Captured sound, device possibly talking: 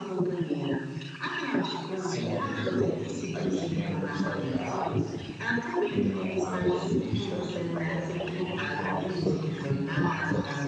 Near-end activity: none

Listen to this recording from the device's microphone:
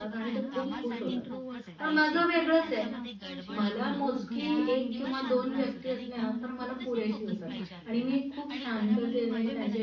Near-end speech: present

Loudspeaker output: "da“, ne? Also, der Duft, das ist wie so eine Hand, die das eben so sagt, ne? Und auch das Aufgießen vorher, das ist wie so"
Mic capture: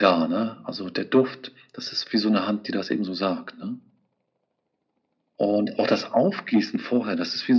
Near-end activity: none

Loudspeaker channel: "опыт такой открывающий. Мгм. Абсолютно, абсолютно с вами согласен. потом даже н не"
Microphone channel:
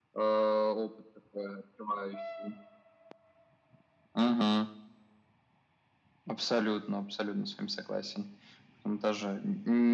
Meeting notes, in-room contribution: none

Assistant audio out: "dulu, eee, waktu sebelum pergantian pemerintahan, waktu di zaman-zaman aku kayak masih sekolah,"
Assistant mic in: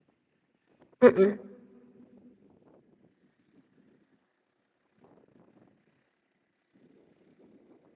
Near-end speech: present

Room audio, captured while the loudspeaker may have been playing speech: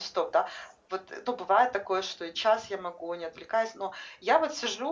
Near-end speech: none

